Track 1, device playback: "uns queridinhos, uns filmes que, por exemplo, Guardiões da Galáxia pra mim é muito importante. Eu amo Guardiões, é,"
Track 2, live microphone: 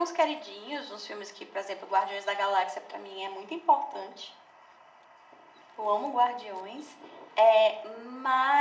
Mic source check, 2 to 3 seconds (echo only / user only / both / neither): echo only